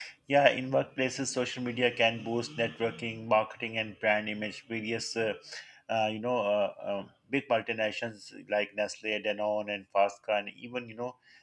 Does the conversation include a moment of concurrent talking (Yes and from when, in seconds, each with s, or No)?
No